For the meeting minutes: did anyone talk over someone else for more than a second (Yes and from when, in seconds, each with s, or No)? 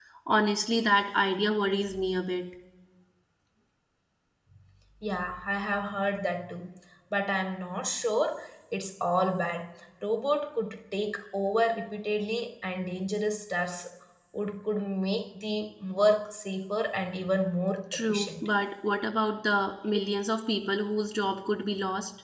No